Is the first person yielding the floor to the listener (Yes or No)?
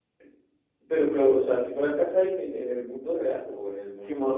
Yes